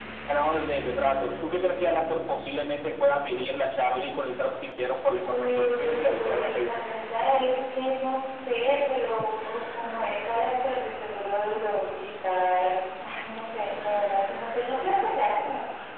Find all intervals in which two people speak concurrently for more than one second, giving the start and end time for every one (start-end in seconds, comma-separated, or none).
5.3-6.8